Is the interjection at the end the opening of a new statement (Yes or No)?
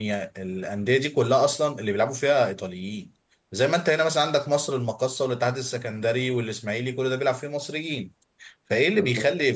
No